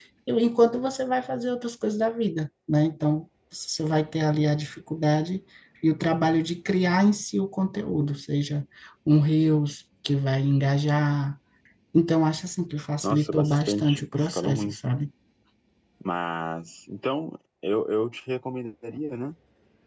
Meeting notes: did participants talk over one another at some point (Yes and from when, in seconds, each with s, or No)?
Yes, from 13.0 s